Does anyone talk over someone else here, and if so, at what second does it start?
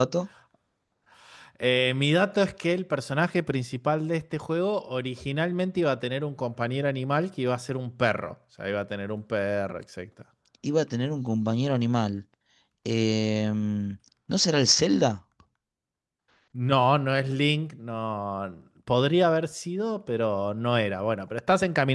none

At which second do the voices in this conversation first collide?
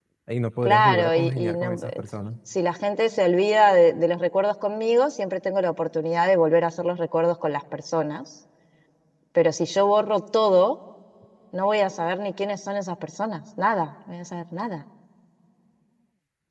0.6 s

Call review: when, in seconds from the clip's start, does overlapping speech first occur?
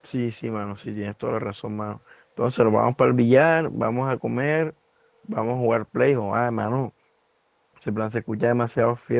none

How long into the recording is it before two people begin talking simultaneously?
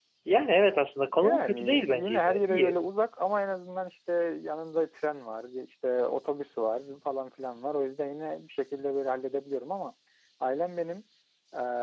1.2 s

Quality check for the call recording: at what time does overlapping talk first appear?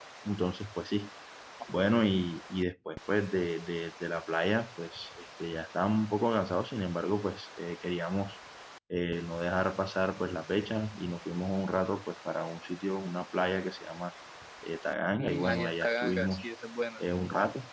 15.1 s

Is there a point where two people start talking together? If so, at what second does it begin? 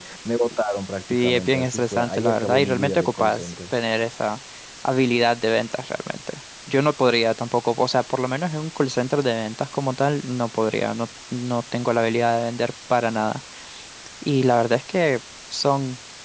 1.1 s

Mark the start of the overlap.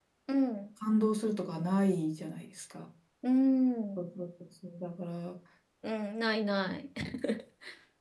none

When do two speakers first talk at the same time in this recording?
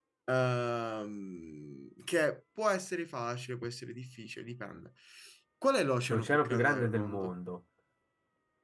6.1 s

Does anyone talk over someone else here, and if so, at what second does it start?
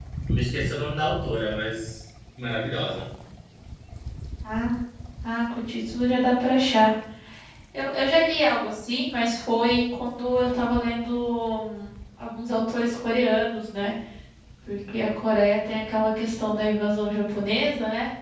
none

